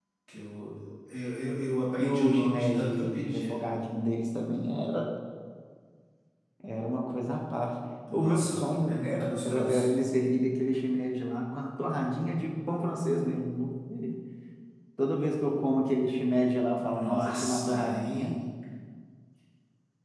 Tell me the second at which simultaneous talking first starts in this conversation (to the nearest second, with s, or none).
2 s